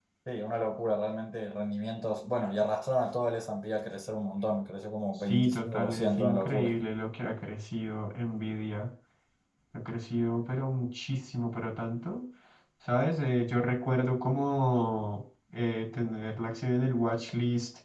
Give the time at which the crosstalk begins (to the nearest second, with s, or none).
5 s